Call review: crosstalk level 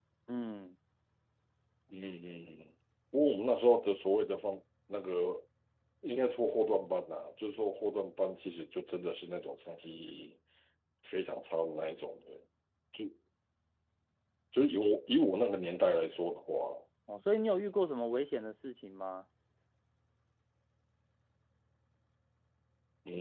none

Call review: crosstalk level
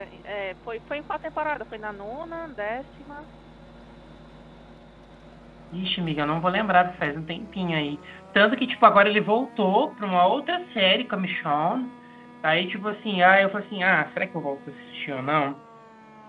none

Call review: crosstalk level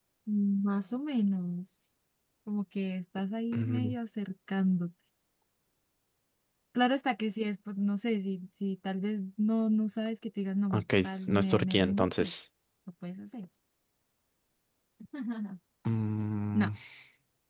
present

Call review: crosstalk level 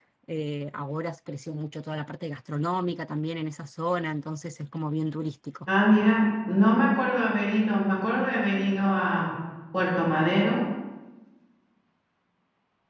none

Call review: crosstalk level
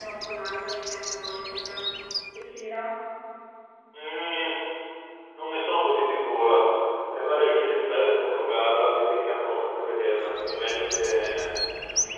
none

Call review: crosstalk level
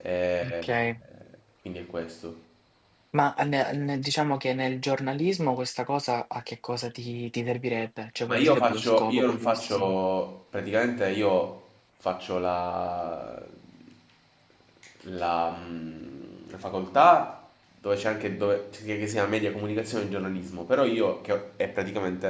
present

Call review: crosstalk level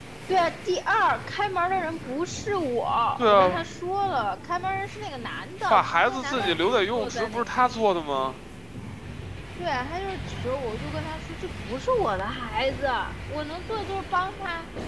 present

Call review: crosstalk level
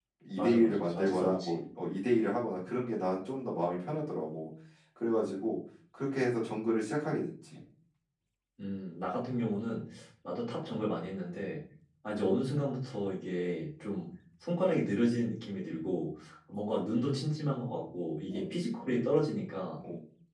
present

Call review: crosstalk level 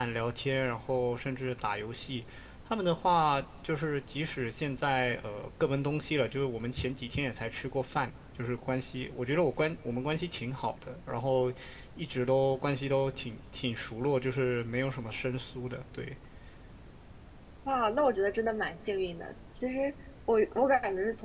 none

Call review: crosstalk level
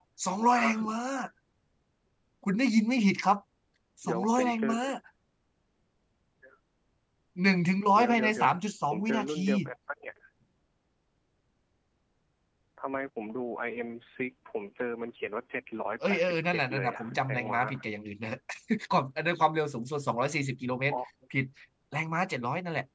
present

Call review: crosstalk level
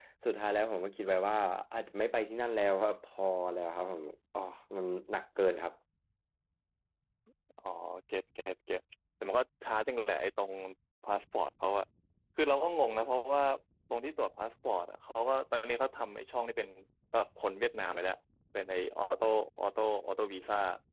none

